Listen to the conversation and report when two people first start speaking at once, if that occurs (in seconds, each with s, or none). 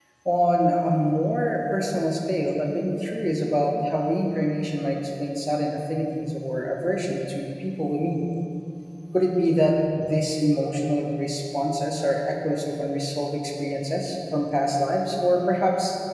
none